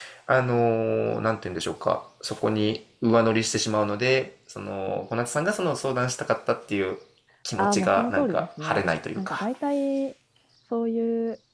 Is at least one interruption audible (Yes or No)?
Yes